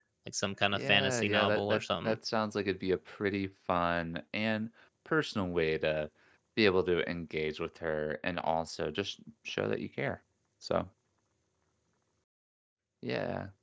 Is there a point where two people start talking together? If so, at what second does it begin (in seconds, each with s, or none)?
0.7 s